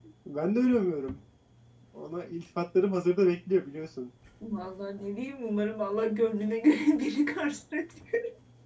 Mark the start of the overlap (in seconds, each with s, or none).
none